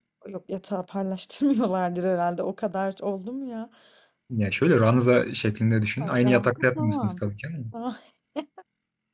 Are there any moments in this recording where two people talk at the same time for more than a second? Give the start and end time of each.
6.0-7.2

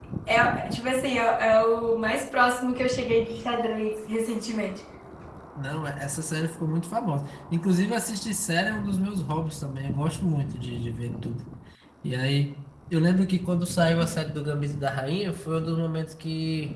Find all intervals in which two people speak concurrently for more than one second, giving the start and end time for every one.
none

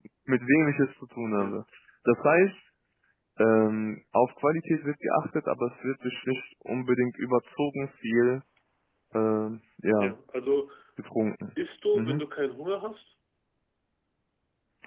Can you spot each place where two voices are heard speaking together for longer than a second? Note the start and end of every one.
none

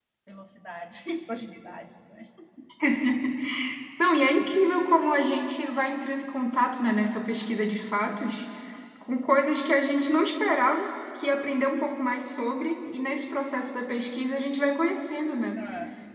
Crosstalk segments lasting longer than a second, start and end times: none

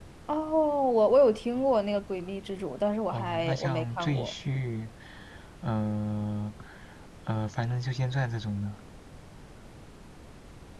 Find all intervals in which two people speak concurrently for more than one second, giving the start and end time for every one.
3.1-4.3

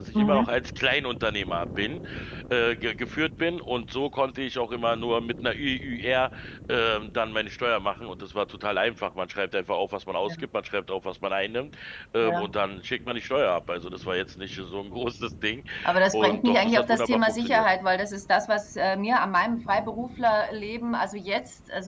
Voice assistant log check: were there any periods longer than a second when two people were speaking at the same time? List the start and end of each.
16.1-17.7

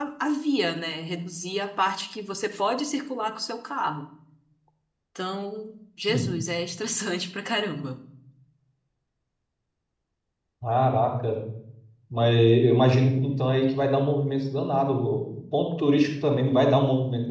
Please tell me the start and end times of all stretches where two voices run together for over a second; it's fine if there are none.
none

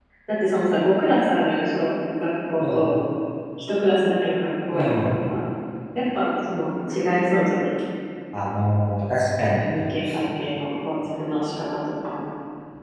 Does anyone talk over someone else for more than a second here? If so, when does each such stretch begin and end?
none

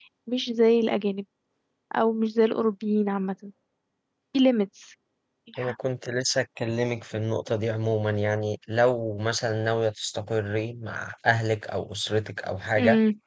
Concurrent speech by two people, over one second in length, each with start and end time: none

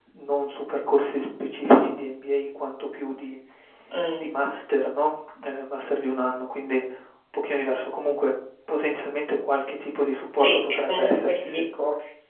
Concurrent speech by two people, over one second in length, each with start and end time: 10.3-11.6

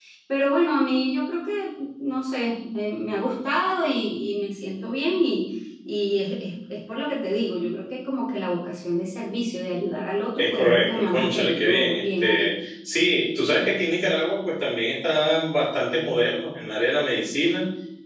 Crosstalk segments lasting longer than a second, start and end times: 10.4-12.5

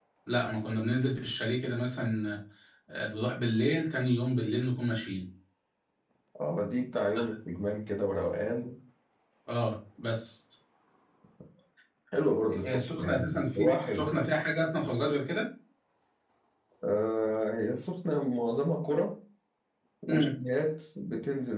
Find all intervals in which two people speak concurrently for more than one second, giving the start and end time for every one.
12.5-14.1

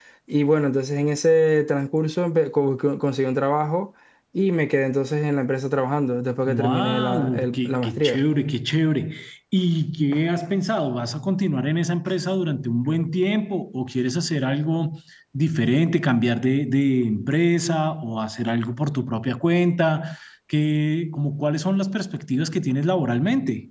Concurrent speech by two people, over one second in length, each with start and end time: 6.5-8.2

